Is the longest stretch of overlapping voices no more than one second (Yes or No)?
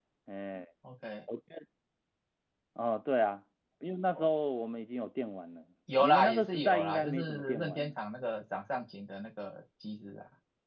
No